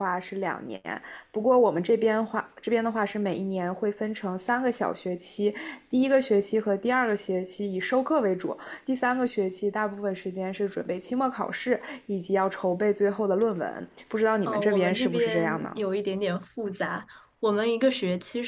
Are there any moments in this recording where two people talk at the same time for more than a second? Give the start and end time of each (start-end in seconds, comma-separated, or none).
14.5-15.8